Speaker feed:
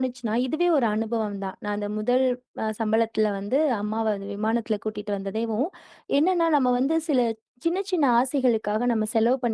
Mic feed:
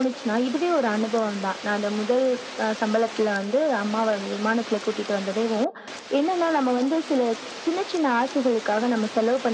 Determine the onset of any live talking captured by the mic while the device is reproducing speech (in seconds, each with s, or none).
none